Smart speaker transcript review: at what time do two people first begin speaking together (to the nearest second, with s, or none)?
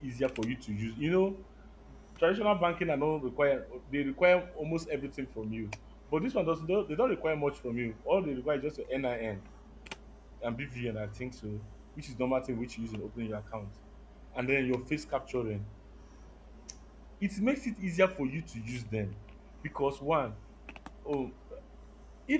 none